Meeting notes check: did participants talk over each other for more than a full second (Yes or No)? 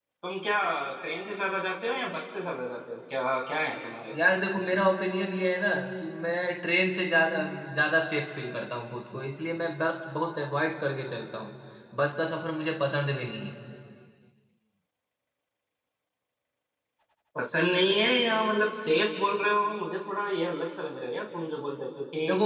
No